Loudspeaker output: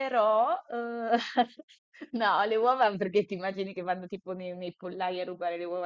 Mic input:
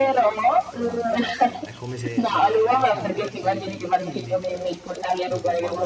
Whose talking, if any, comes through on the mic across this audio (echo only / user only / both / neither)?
both